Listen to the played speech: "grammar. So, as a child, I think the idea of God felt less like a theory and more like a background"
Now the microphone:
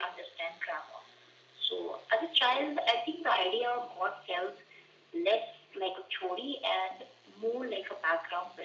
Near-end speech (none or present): none